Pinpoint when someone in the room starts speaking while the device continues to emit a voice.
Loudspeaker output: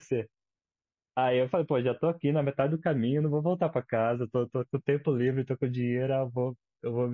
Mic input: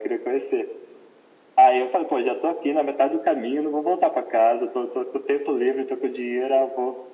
none

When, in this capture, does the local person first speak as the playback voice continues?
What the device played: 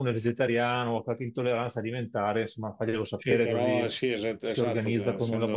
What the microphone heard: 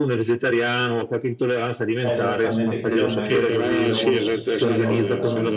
2.0 s

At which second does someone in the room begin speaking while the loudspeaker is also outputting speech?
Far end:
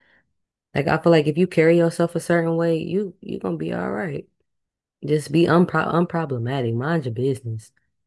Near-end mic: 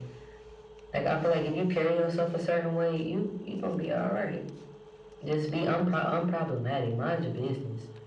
none

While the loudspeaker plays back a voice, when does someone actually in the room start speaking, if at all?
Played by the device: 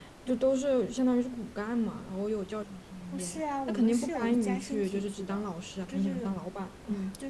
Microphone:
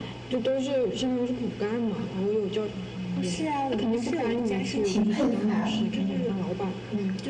4.8 s

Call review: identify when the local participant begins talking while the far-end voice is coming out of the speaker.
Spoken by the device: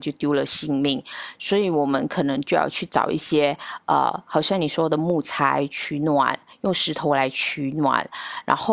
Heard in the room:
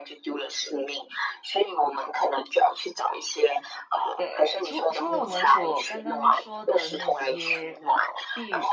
4.2 s

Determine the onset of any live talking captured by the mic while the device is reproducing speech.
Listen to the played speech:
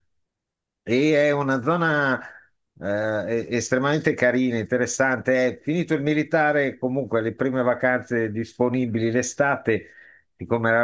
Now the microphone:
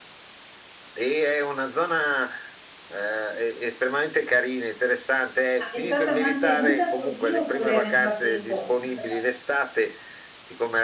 5.6 s

